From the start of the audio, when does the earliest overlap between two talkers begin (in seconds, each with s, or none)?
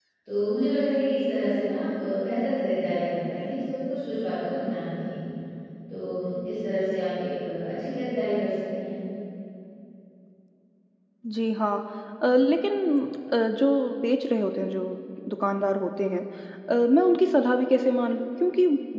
none